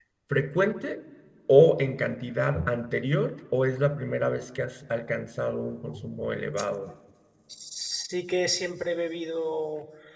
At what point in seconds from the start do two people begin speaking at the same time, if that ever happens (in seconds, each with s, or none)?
none